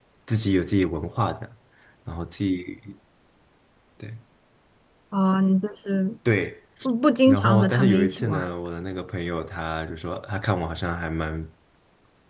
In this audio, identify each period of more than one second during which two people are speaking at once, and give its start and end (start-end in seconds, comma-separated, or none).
7.3-8.5